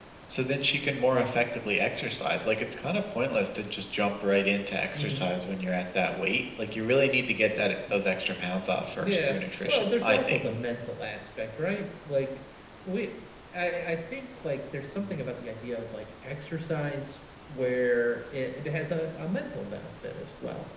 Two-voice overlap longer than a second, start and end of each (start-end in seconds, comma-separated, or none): 9.0-10.4